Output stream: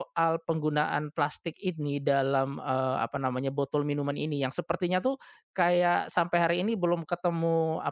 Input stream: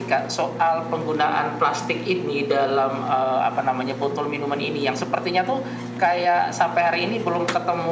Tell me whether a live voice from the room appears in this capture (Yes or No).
No